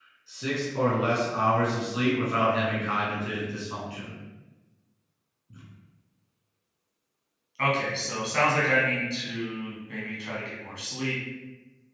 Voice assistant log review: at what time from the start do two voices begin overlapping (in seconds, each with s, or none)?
none